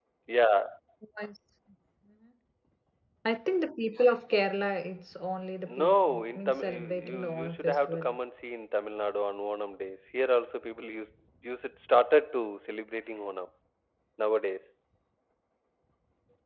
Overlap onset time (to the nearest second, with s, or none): 6 s